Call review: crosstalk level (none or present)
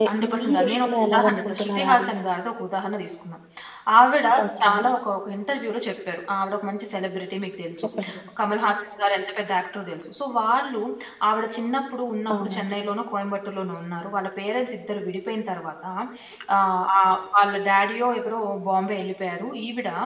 present